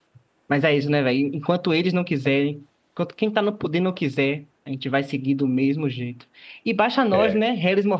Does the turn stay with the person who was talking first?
Yes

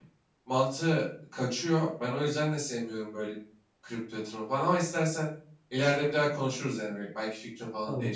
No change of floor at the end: No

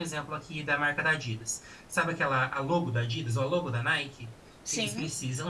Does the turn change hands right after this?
No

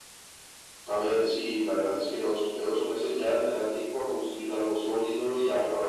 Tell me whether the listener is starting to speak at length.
No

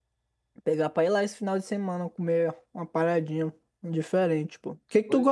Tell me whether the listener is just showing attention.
Yes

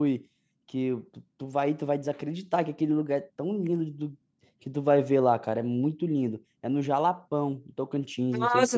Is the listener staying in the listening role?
No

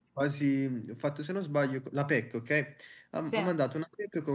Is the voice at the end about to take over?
No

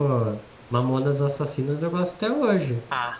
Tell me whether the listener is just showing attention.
No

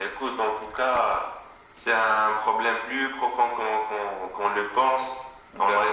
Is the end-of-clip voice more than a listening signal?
No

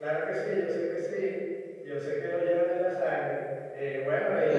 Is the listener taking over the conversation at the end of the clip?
Yes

